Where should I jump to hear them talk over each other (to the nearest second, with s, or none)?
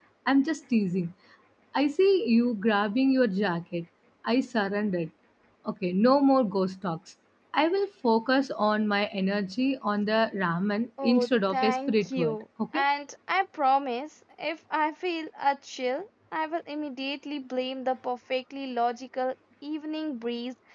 11 s